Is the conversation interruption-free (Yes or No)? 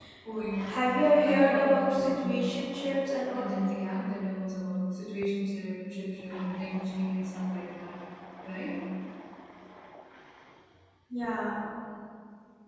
No